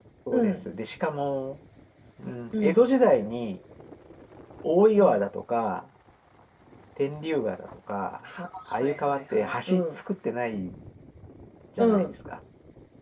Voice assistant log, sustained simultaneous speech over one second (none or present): present